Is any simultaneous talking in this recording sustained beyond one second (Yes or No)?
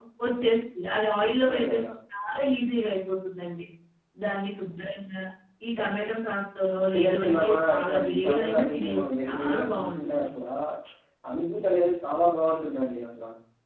Yes